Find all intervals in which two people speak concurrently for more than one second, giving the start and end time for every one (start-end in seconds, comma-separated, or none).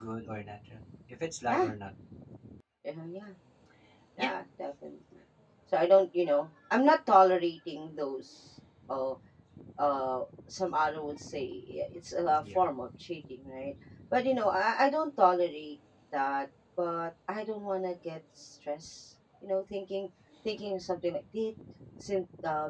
none